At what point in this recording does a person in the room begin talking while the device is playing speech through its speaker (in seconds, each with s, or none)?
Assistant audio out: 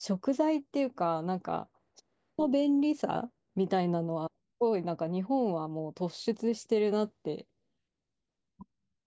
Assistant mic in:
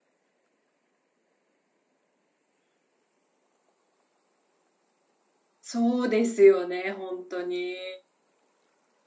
5.6 s